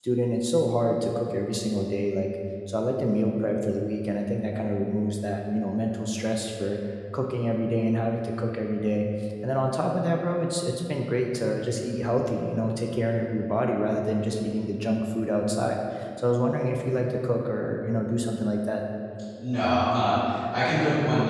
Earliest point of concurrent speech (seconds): none

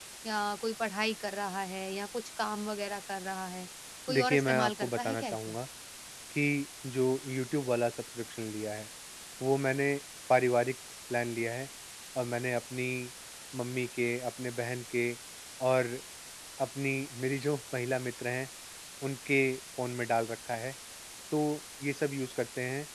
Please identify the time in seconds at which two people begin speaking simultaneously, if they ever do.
4.1 s

